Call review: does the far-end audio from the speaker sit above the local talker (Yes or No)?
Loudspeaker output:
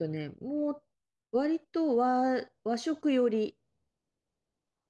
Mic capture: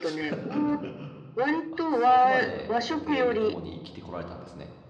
Yes